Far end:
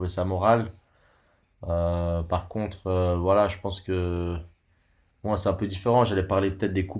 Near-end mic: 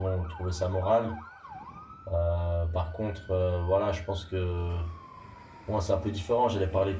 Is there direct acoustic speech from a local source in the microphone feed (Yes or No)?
No